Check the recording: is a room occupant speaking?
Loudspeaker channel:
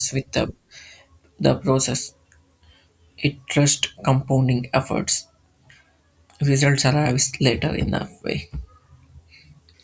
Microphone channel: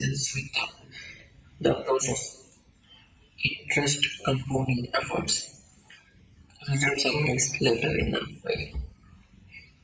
No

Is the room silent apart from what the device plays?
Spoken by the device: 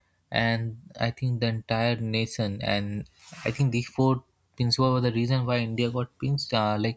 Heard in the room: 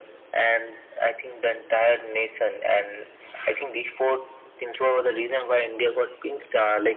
Yes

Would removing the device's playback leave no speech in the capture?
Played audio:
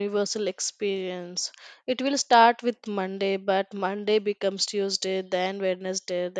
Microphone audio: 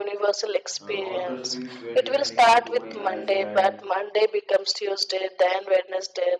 No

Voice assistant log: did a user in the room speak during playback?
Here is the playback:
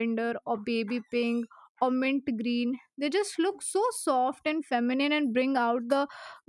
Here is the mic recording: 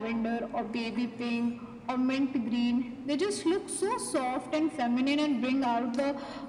No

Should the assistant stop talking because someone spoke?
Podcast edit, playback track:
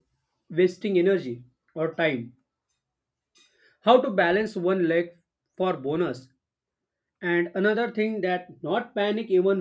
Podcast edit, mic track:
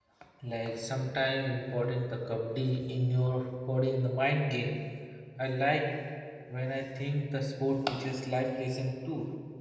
Yes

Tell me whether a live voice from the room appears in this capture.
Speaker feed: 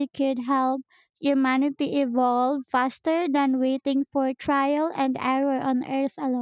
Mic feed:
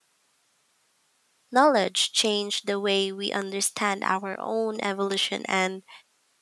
Yes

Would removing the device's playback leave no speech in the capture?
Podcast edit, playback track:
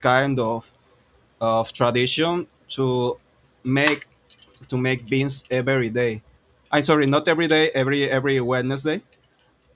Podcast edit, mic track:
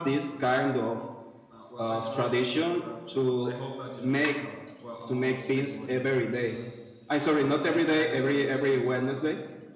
No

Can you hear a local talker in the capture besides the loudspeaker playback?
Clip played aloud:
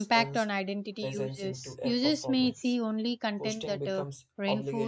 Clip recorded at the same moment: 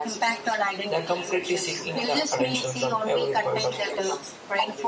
Yes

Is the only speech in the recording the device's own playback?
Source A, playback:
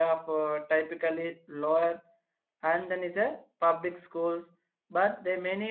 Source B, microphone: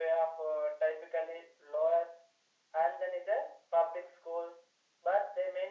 Yes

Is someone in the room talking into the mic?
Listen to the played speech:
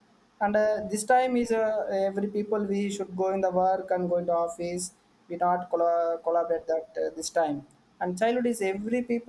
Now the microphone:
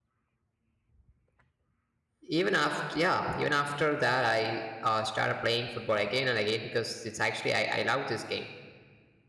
Yes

